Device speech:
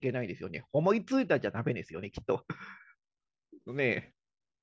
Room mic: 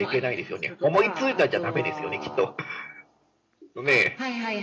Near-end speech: present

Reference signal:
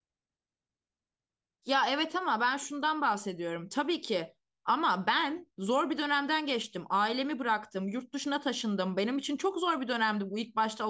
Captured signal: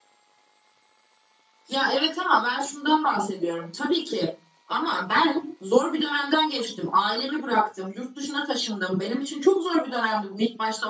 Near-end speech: none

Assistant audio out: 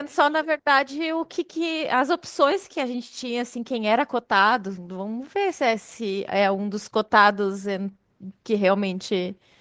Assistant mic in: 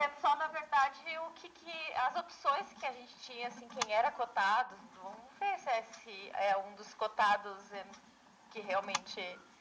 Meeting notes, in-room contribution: none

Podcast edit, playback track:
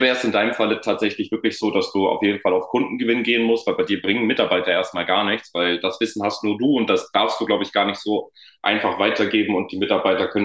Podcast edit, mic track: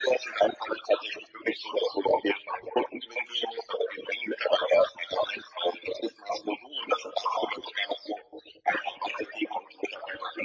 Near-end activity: none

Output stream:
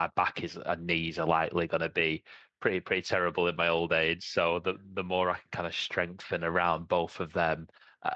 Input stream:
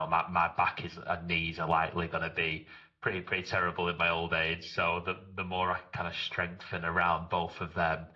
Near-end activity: none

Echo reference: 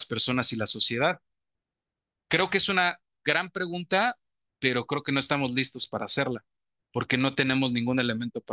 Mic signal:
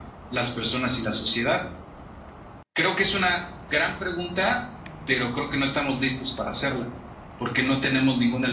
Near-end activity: none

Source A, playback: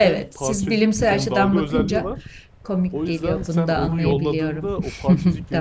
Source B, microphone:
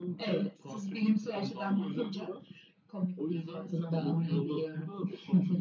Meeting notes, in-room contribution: none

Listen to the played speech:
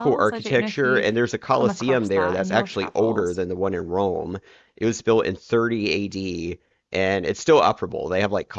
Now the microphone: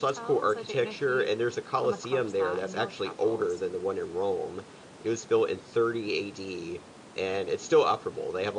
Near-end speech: none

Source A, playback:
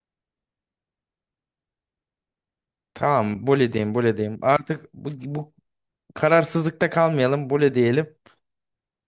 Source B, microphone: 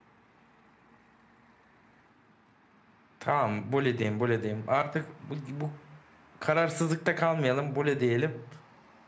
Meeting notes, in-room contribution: none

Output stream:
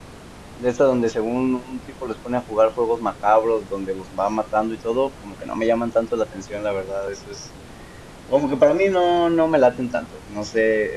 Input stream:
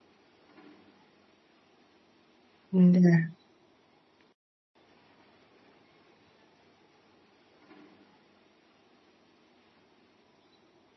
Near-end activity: present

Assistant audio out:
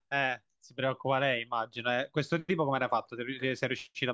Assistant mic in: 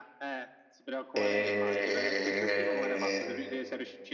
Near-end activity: present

